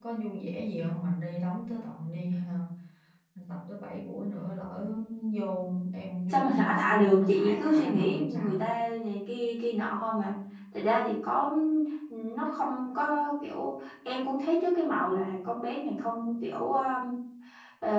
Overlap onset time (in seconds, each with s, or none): 6.3 s